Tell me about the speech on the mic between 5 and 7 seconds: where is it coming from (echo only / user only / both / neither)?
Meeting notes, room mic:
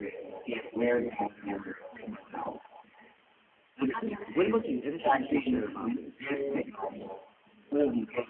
both